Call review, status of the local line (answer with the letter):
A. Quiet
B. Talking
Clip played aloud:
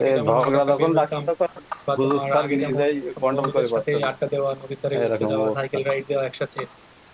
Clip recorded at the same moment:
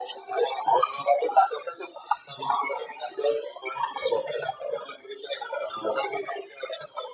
A